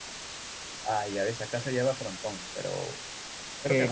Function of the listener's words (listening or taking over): taking over